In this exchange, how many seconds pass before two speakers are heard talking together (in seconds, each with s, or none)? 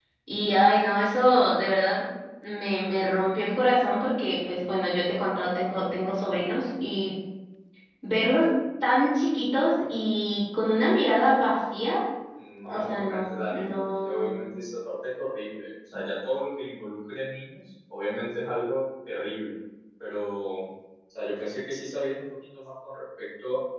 12.7 s